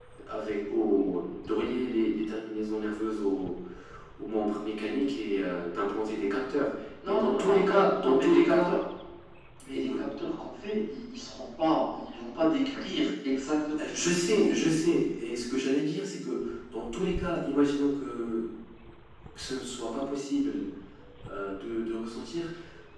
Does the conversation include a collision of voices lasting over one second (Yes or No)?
Yes